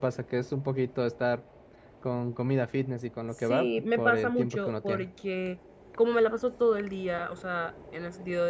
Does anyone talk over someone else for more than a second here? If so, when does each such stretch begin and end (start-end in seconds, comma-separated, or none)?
3.5-5.1